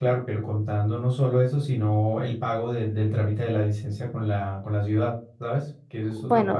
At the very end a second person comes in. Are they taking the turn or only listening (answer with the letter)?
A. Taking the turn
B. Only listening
A